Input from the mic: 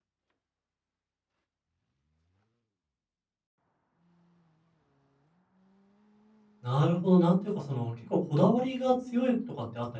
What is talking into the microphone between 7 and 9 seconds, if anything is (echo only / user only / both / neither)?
user only